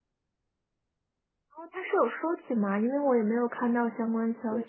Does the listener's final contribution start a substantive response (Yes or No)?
Yes